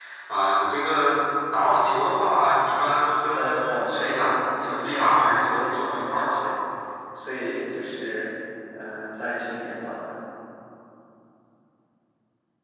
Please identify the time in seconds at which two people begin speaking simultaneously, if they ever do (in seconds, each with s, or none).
3.3 s